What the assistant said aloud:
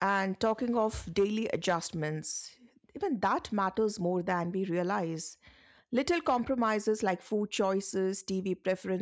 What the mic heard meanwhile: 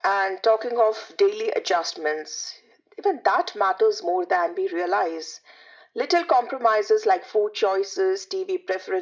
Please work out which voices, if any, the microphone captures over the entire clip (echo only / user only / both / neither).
echo only